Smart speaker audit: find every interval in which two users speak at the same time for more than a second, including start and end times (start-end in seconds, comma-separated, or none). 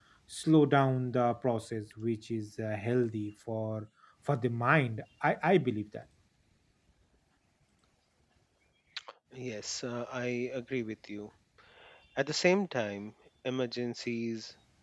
none